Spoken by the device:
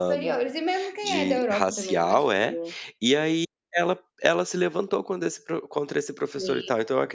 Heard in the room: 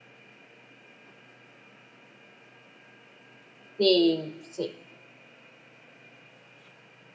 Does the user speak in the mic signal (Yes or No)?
Yes